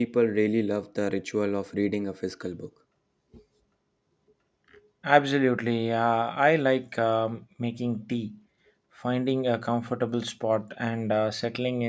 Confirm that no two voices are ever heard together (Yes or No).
Yes